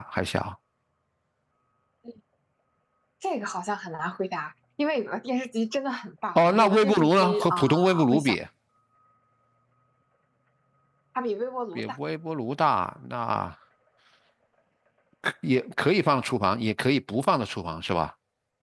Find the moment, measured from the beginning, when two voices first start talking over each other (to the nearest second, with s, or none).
6 s